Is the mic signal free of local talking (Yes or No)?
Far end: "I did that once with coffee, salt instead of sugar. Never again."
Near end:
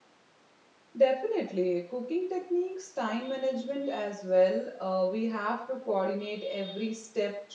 No